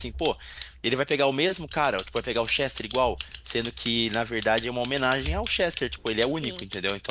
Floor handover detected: No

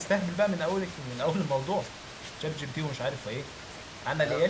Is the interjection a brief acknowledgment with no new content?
No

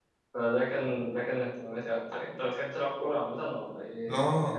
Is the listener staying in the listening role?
No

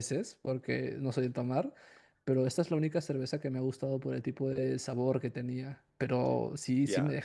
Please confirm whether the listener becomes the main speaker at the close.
No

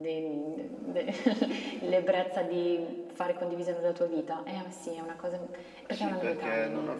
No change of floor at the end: No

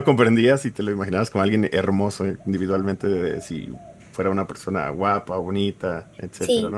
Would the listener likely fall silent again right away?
No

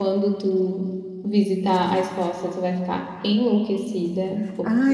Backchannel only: No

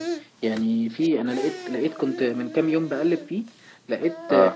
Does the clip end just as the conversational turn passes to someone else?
No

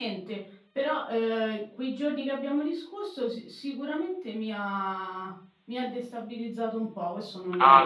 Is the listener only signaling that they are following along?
No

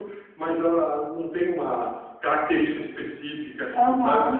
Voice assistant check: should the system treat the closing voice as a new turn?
Yes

